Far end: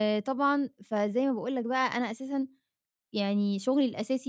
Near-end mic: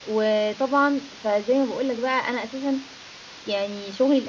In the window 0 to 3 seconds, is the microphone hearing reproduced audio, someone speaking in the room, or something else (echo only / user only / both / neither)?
echo only